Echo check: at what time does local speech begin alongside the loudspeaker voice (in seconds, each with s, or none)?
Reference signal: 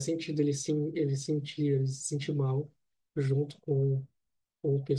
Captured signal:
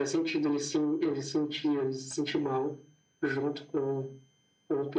none